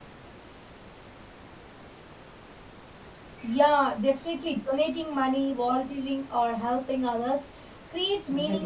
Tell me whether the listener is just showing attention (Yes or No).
Yes